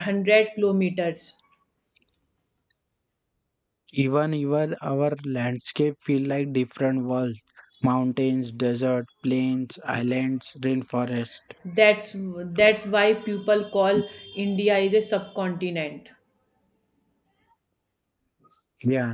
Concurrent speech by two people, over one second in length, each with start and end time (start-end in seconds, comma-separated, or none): none